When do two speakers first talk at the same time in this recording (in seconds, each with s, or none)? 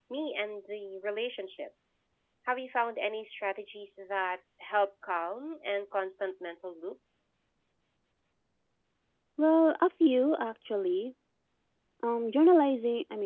none